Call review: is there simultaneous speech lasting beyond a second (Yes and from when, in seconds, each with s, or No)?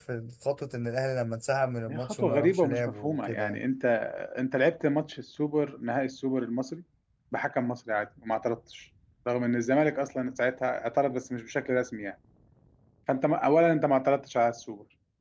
Yes, from 1.9 s